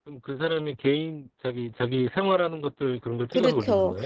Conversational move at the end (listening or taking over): taking over